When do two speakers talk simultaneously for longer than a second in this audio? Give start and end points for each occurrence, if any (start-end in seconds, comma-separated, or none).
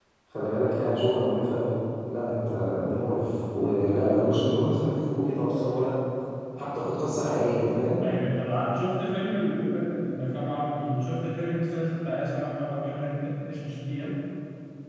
none